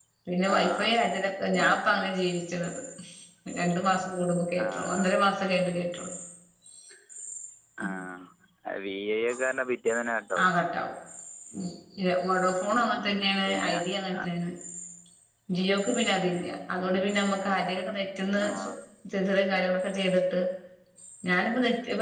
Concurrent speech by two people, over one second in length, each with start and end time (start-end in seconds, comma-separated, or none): none